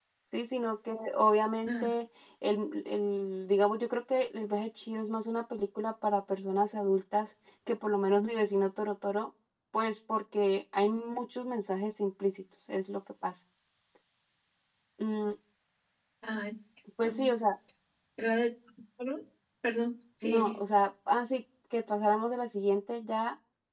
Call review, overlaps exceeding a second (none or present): none